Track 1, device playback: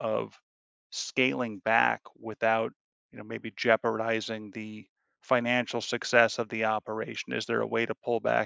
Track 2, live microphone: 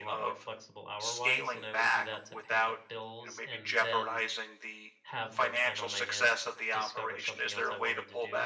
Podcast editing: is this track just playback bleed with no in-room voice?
No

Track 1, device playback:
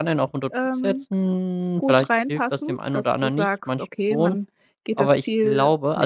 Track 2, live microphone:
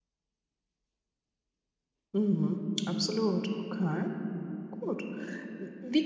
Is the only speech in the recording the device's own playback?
No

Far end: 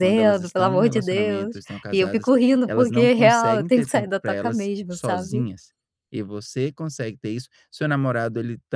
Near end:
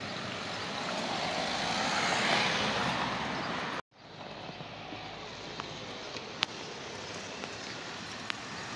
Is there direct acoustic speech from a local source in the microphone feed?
No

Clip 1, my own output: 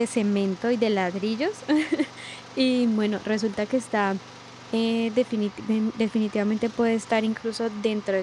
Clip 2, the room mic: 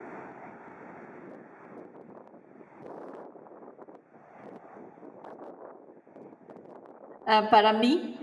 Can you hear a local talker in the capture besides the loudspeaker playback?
Yes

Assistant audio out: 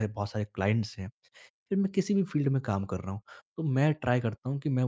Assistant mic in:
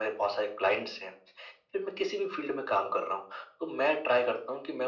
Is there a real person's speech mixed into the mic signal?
No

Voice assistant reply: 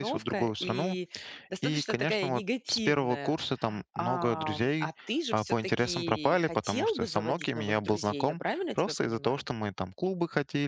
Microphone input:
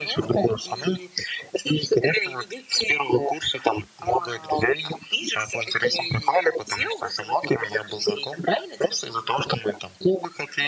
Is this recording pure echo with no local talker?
Yes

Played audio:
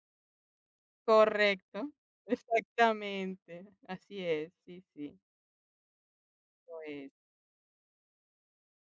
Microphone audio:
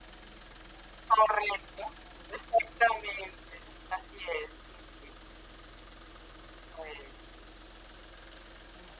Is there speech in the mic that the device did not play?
No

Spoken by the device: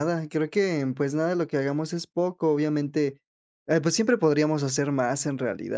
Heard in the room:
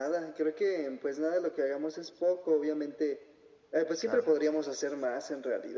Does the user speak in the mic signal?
Yes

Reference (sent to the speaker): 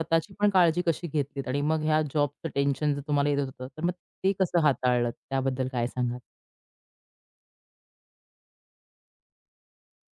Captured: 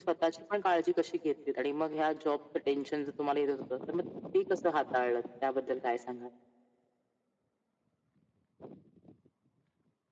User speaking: No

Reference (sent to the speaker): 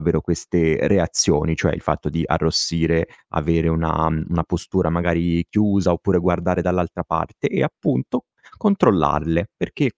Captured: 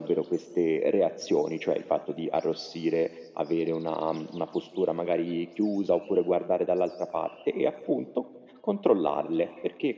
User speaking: No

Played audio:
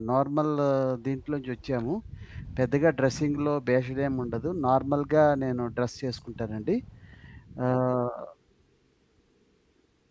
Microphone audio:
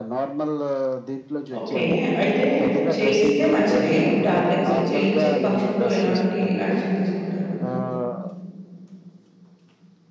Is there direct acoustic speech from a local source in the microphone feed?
Yes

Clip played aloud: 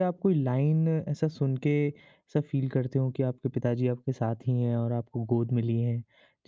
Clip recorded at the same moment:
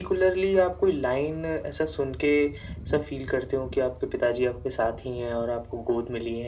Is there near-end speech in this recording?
No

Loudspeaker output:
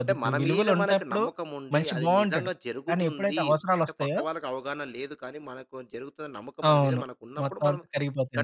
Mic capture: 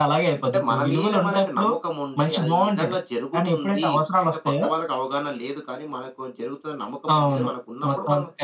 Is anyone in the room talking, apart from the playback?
No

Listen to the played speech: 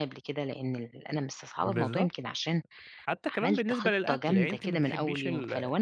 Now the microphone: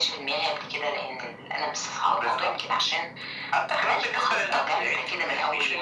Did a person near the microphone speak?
No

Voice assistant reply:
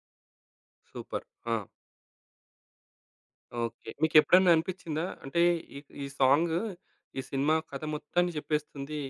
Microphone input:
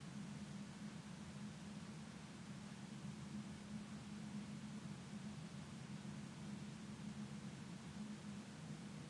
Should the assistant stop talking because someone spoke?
No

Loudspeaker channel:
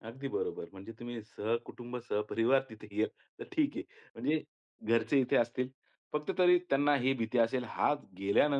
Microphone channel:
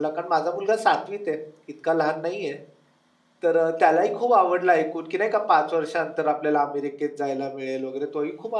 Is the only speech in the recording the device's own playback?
No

